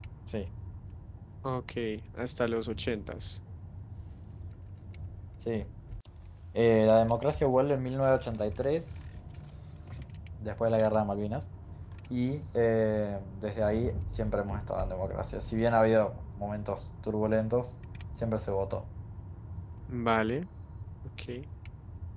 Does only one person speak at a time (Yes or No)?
Yes